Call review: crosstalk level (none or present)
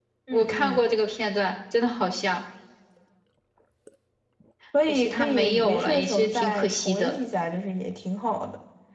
present